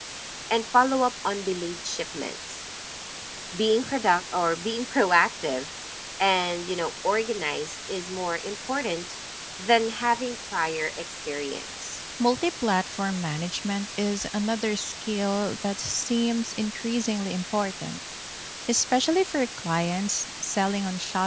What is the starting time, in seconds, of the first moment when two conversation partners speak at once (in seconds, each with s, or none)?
none